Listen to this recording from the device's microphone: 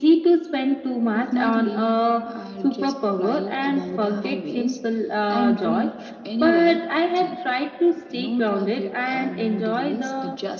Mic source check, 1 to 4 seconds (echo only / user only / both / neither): echo only